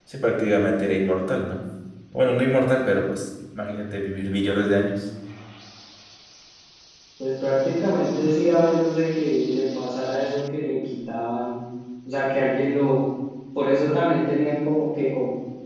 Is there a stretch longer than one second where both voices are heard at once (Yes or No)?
No